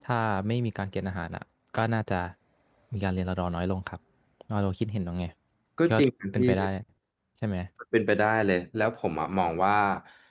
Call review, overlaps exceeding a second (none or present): none